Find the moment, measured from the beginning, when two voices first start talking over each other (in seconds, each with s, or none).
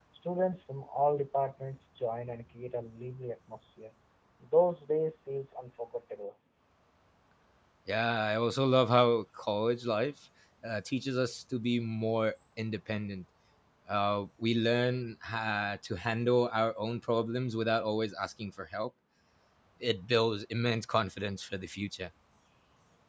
none